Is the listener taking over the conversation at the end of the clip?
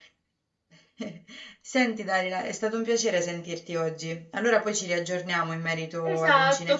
Yes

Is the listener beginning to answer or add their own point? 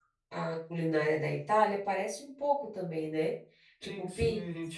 Yes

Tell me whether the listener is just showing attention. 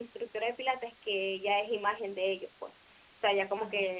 Yes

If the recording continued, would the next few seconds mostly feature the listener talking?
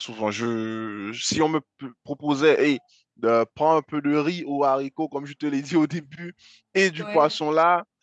No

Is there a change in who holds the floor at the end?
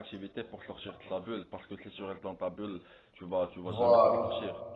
No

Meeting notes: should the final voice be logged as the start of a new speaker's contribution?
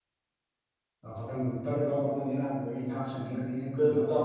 Yes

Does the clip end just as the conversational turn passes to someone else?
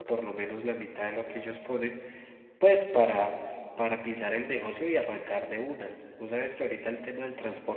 No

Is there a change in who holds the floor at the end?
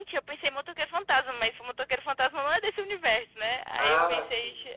No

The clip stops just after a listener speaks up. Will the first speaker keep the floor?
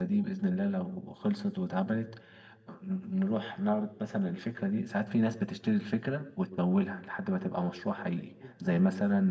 Yes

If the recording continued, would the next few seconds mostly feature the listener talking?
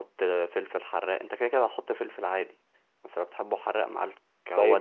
Yes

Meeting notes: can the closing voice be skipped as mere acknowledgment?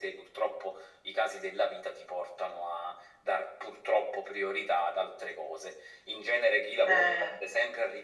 Yes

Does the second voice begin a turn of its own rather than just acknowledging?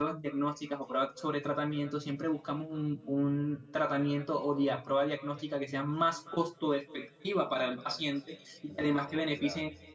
No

